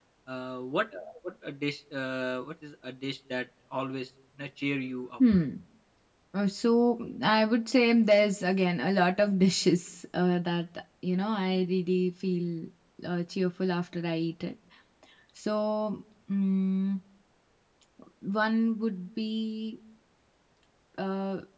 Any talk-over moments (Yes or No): No